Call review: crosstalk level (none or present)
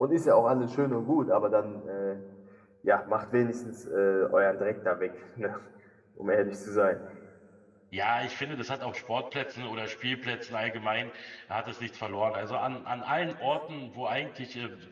none